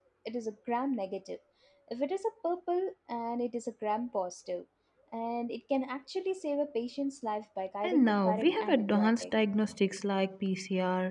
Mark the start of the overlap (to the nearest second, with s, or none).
8 s